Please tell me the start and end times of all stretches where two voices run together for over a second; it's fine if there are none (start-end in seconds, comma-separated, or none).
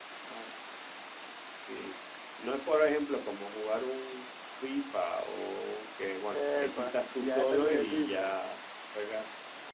6.3-8.3